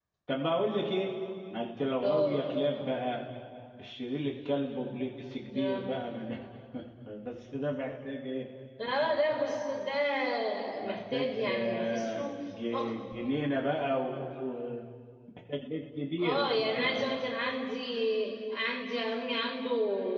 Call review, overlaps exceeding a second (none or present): present